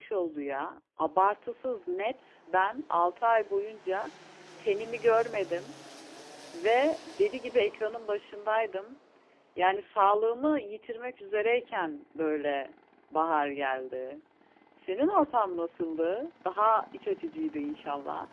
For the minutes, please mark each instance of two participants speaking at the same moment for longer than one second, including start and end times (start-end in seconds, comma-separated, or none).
none